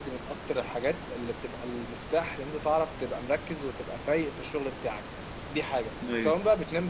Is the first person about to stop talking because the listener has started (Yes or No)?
No